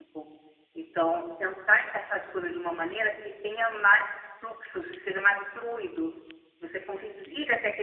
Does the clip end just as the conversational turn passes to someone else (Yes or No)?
No